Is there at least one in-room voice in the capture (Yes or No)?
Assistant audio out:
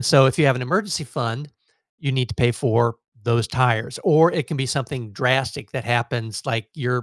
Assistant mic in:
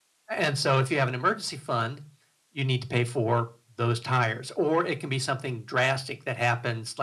No